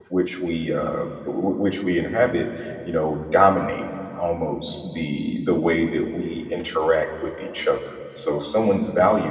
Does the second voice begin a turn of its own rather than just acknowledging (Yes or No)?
No